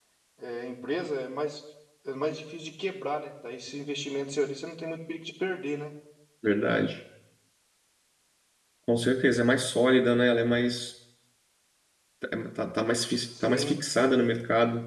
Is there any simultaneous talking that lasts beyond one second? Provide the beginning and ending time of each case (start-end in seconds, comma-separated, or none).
none